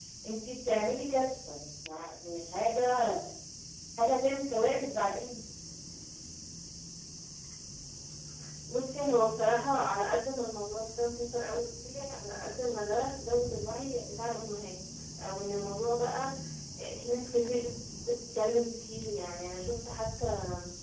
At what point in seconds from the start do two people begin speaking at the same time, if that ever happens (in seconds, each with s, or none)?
none